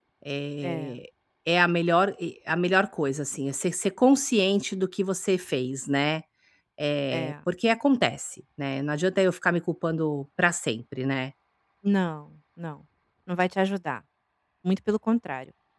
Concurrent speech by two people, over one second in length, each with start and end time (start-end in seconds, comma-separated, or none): none